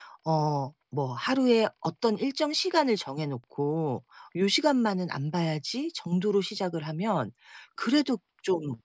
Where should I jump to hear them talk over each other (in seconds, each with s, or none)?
none